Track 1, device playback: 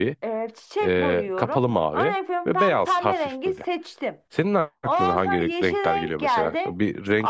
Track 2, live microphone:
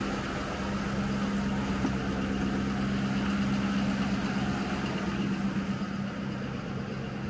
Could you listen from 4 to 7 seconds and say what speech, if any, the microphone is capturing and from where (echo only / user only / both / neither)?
neither